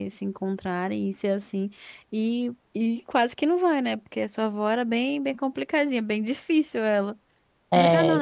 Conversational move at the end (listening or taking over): taking over